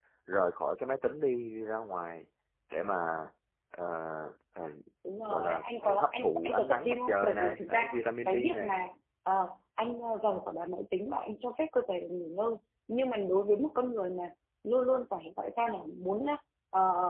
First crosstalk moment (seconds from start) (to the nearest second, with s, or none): 5 s